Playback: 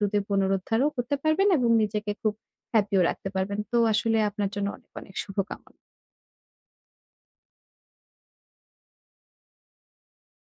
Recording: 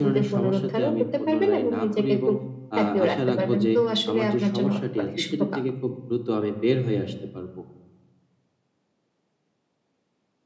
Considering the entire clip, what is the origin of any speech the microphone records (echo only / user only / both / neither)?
both